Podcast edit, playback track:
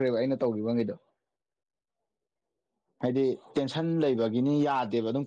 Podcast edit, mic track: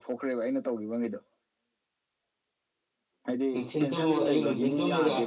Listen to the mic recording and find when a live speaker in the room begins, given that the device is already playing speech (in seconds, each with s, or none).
3.5 s